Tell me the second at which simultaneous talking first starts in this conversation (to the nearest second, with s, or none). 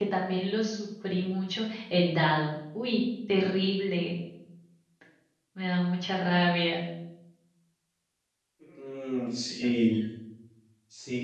none